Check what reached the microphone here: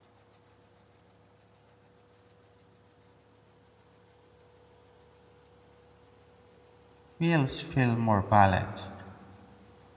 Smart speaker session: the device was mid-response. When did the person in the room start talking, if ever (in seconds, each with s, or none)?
7.2 s